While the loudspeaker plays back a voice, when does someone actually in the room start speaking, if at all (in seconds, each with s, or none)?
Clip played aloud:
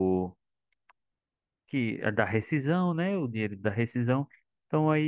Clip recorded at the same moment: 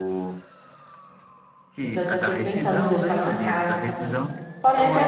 1.8 s